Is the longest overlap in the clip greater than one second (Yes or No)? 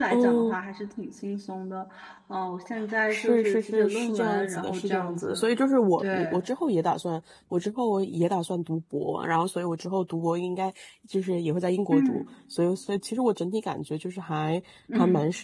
Yes